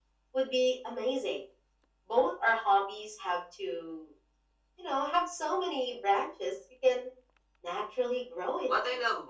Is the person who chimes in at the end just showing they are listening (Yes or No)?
No